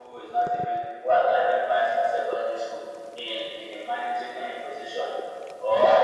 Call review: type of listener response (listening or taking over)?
listening